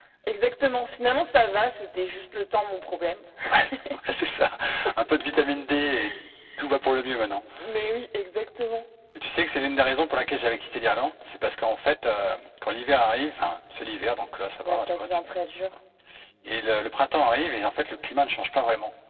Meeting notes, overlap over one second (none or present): none